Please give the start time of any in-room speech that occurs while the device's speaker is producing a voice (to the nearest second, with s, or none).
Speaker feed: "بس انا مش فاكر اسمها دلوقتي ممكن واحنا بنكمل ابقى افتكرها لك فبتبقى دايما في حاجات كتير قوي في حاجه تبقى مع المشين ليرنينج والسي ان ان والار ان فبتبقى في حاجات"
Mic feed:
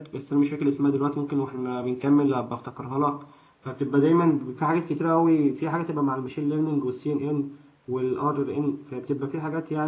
none